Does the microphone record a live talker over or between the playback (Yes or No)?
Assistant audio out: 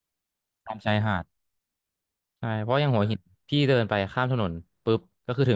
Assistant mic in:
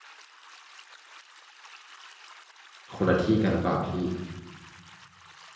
Yes